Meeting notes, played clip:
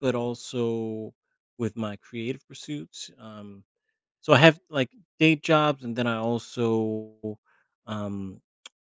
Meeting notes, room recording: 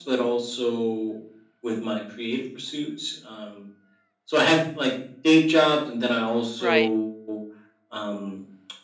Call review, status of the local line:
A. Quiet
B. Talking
B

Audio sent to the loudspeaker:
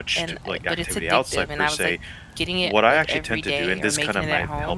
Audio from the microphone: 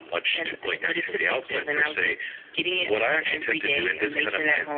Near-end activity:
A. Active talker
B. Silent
B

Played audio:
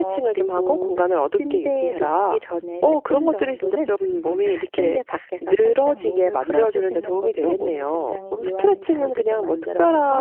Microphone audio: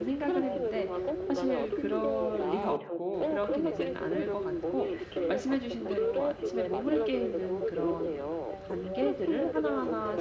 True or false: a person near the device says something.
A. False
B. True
B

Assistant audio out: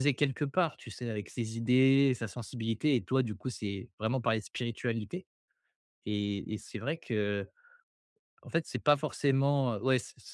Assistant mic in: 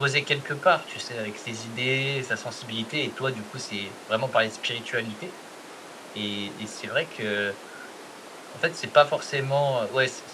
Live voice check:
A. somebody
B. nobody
B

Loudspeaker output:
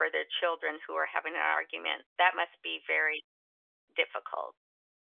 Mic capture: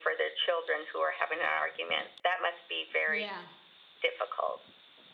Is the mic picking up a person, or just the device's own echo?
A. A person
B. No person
A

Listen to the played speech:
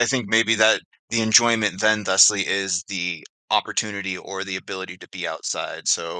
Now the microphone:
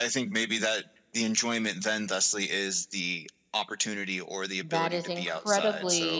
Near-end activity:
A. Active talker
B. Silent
A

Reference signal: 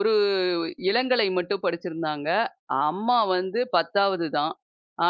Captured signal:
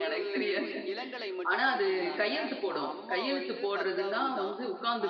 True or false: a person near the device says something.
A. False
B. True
B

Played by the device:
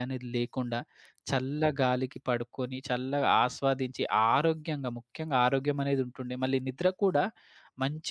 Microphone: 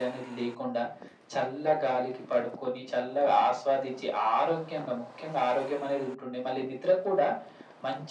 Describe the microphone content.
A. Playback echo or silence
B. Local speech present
A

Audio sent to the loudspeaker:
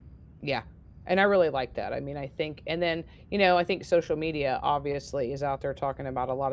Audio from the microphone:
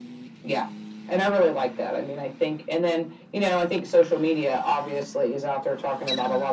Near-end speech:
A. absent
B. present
A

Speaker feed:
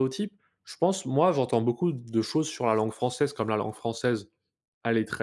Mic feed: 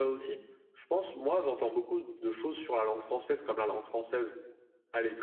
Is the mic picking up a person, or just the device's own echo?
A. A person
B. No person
B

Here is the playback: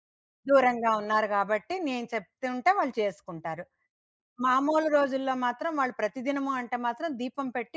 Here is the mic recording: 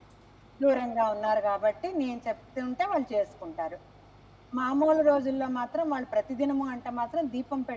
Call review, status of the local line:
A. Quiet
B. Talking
A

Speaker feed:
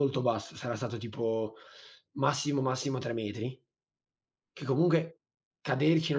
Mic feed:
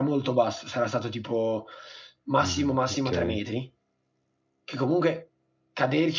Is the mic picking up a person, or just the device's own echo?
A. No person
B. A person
B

